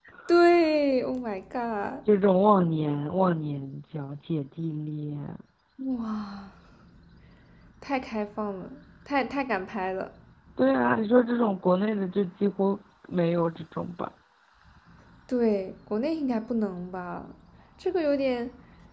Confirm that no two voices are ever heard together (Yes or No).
Yes